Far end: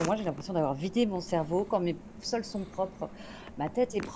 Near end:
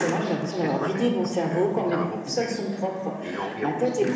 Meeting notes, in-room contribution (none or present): present